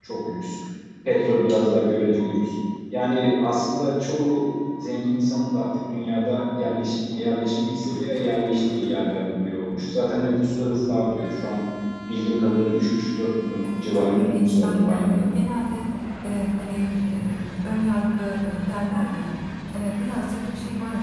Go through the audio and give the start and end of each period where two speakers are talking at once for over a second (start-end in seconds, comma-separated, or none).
13.6-15.2